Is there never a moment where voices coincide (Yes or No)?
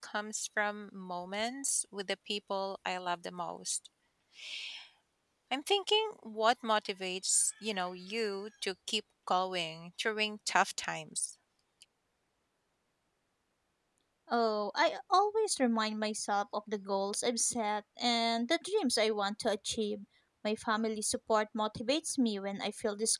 Yes